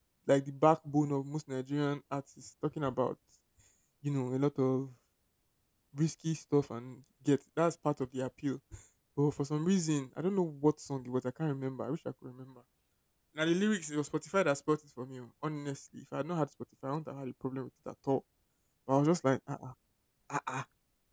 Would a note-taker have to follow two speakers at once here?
No

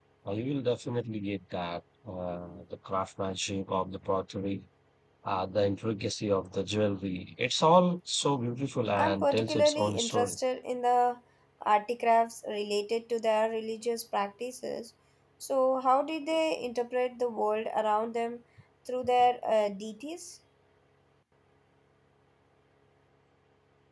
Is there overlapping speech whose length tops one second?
Yes, from 8.9 s

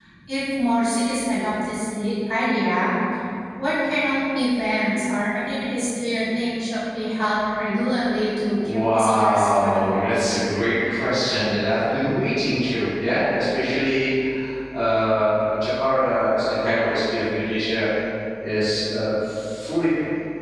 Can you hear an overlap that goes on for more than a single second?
Yes, from 8.6 s

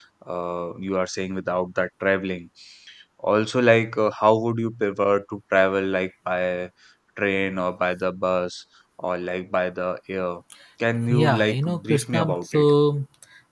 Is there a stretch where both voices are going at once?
Yes, from 11.2 s

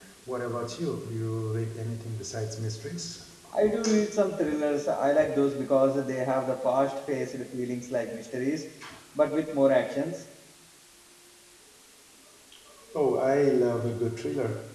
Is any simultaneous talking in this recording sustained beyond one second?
No

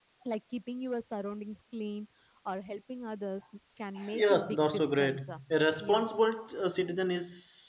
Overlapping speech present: Yes, from 4.1 s

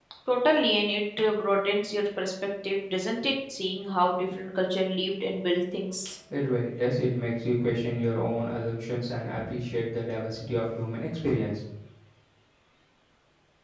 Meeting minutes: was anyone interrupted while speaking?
No

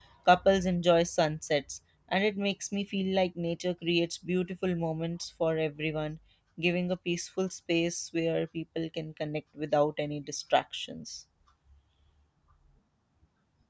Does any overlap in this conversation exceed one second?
No

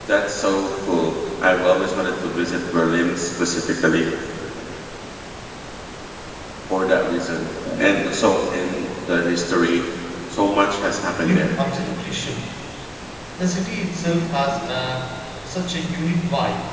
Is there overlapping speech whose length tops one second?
No

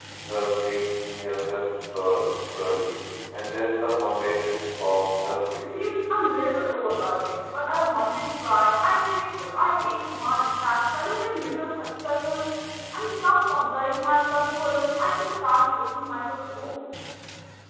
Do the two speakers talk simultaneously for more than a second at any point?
No

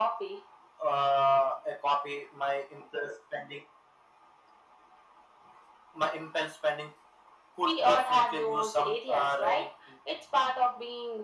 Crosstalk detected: Yes, from 7.6 s

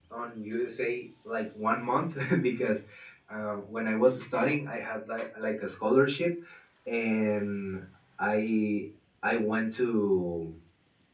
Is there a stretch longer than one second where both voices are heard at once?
No

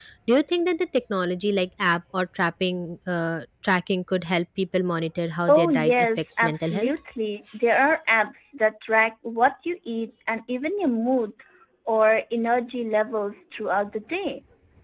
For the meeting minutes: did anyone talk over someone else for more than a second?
Yes, from 5.5 s

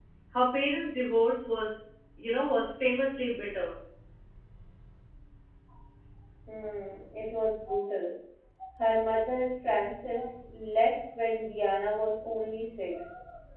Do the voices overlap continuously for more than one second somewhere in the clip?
No

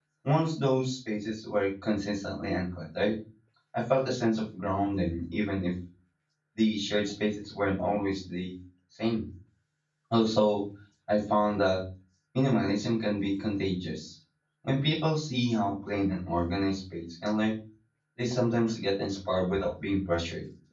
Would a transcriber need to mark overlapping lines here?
No

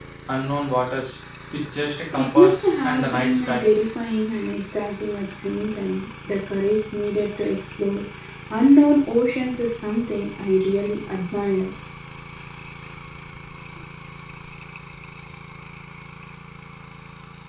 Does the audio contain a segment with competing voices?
Yes, from 2.1 s

